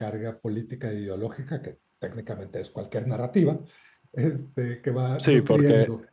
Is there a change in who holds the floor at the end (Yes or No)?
Yes